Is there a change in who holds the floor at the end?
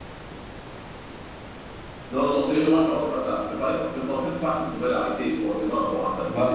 Yes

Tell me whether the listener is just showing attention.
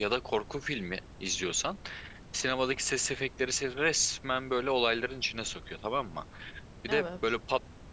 Yes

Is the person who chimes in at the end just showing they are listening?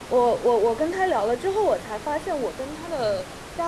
Yes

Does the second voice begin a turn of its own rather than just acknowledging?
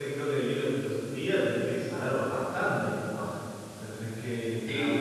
Yes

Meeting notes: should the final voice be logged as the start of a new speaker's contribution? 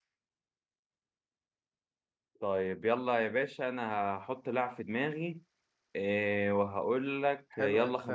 Yes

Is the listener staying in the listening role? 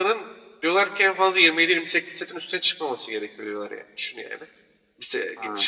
Yes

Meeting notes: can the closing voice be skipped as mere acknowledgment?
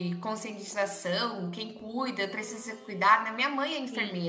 No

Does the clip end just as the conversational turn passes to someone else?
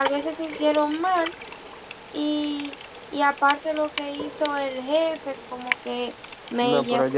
Yes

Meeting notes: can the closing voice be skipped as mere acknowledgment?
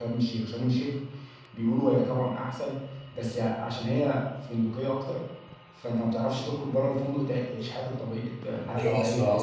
No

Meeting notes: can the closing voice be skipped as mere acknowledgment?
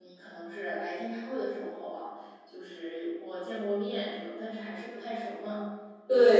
Yes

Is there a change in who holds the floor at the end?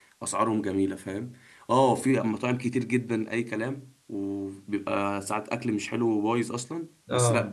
No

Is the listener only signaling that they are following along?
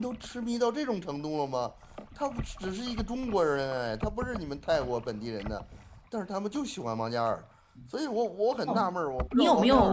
No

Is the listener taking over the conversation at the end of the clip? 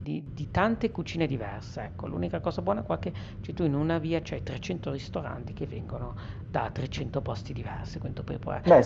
Yes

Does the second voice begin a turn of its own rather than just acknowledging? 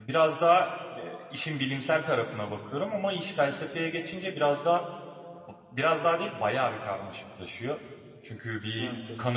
No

